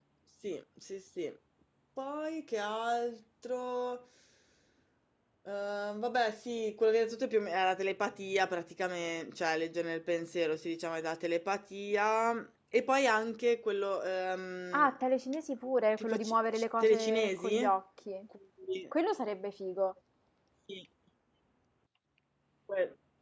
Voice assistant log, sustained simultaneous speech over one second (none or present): present